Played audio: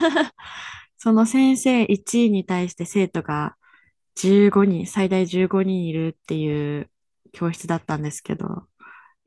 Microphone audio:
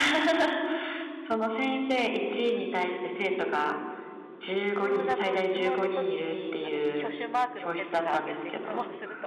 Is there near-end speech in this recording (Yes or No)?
Yes